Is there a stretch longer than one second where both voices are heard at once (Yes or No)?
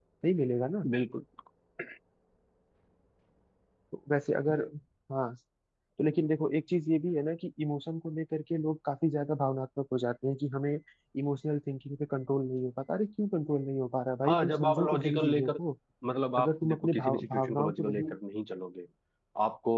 Yes